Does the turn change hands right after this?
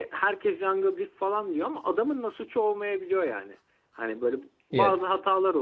No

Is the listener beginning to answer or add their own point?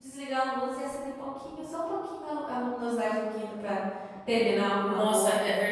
Yes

